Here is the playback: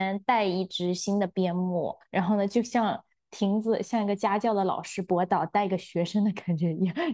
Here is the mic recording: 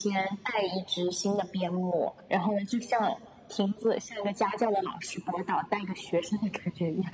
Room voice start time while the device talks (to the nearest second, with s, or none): none